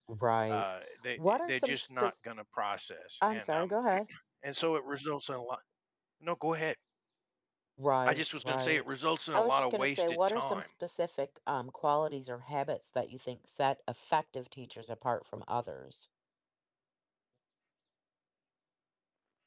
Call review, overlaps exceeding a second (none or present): present